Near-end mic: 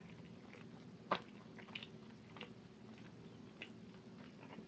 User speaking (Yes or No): No